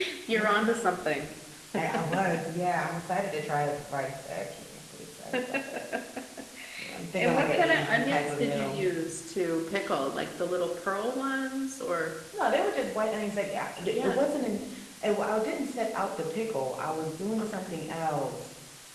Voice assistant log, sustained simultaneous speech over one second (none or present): present